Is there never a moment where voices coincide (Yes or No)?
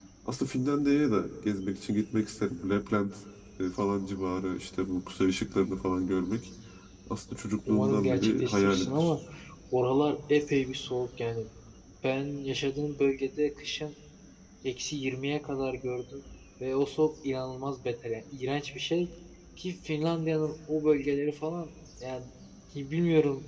No